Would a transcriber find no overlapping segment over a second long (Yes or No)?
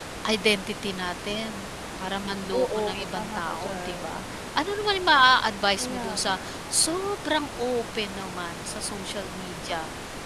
No